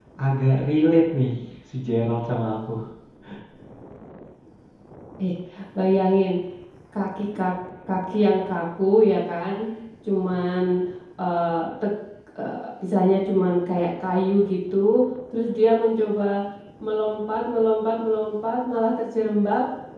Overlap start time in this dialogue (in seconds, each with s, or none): none